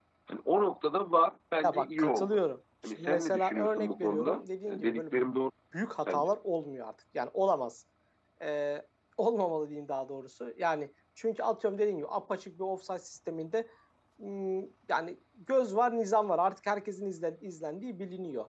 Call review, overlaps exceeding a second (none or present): present